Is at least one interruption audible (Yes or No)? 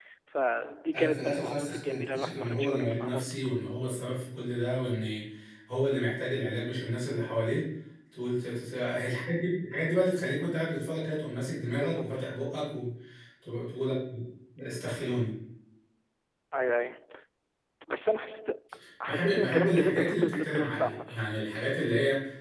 Yes